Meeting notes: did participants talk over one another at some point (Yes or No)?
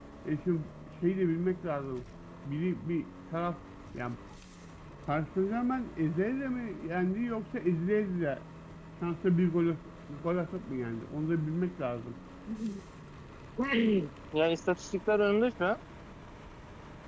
No